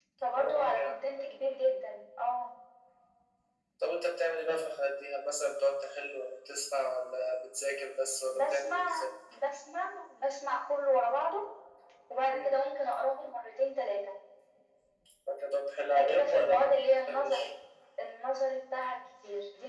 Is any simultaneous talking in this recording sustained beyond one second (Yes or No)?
Yes